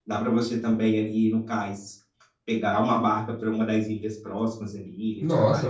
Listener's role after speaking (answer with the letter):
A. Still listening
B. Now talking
B